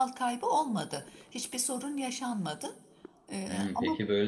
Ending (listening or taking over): taking over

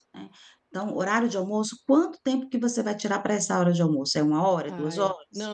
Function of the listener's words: taking over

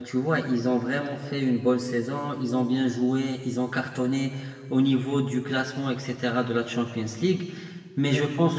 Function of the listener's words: listening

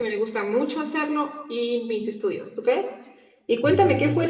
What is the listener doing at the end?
listening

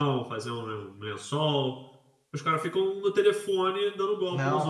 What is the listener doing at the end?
taking over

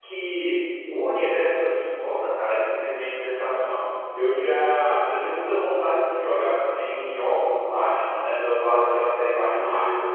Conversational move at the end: listening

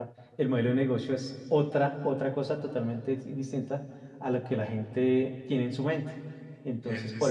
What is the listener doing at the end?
listening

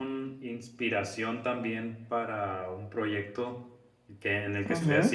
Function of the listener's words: listening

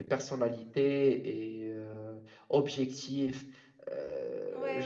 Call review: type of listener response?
taking over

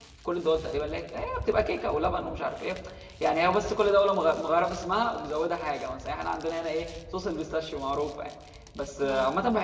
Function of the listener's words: listening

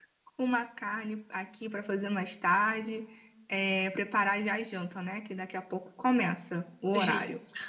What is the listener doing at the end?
taking over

